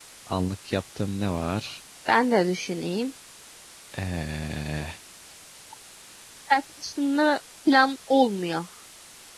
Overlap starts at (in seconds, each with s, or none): none